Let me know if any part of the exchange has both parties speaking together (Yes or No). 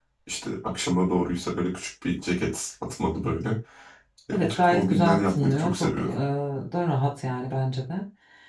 Yes